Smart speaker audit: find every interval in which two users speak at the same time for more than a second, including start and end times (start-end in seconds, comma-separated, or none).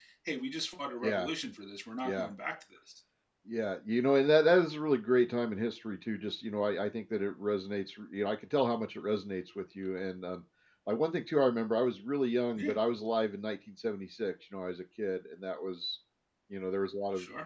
none